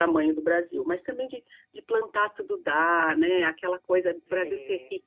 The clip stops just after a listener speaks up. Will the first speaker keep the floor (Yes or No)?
Yes